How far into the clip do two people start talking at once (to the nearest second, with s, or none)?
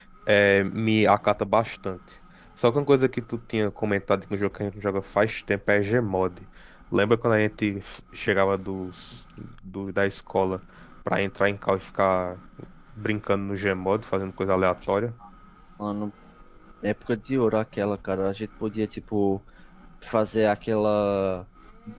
none